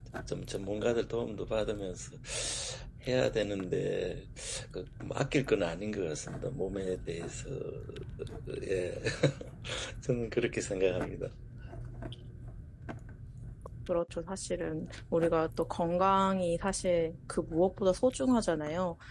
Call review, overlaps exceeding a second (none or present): none